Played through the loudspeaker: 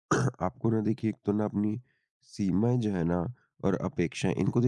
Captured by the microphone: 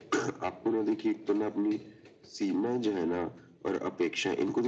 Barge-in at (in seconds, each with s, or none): none